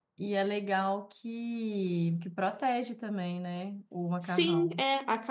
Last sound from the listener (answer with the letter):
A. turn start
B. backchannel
A